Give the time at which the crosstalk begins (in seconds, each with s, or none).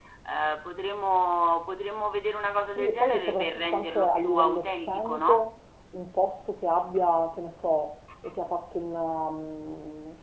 2.6 s